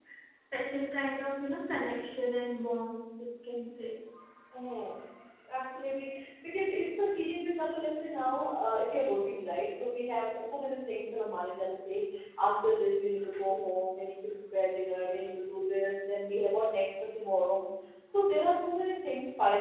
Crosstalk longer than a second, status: none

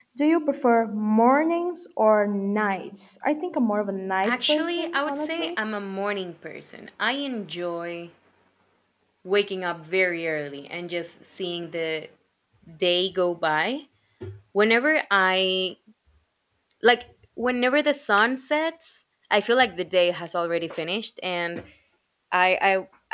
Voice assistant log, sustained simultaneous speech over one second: present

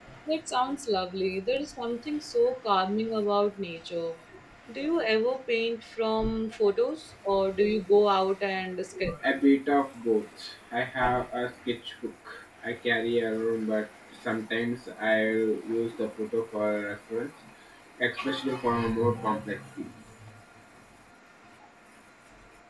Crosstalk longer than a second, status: none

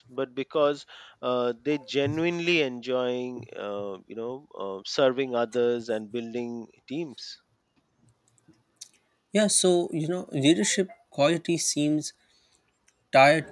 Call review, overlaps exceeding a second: none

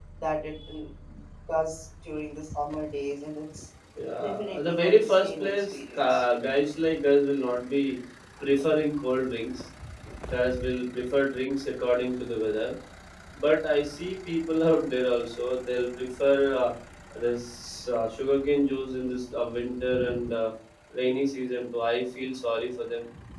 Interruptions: present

